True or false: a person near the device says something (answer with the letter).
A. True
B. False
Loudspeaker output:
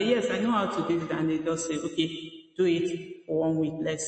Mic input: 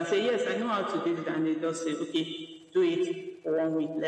B